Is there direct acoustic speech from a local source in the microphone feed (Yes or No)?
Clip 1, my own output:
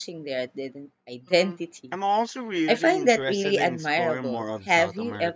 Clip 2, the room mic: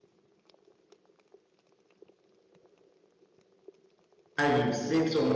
Yes